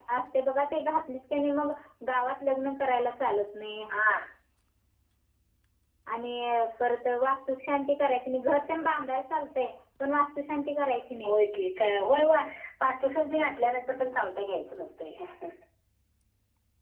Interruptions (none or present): none